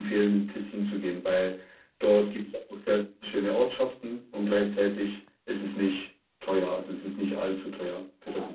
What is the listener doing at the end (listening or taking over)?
taking over